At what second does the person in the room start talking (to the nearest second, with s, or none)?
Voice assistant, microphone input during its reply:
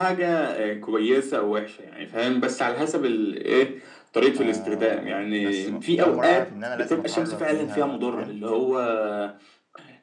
4 s